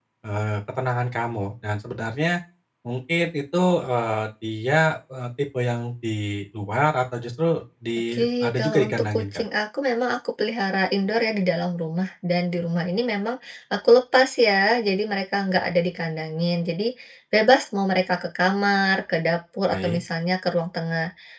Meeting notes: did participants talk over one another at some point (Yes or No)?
Yes